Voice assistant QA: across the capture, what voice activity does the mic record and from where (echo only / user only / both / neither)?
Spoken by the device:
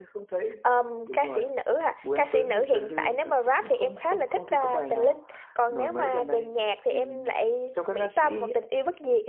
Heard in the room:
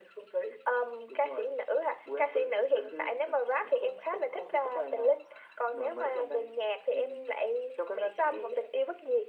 echo only